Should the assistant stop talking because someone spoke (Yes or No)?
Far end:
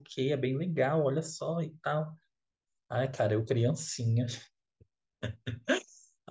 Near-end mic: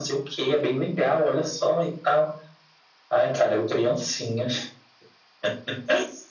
No